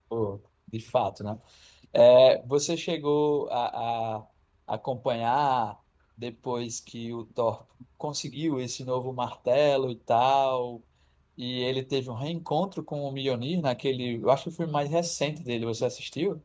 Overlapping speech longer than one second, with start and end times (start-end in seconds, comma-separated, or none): none